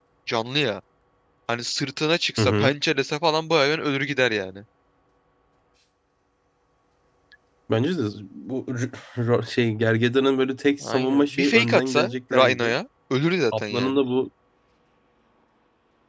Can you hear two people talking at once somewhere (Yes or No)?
Yes